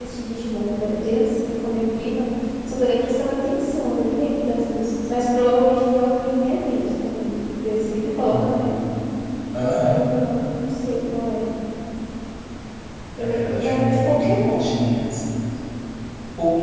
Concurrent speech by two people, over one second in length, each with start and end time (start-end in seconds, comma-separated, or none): 13.2-14.7